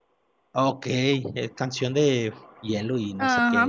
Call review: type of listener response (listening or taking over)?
taking over